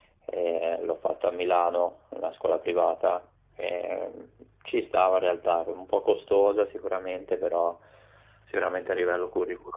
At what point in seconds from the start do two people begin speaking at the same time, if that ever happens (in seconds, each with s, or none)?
none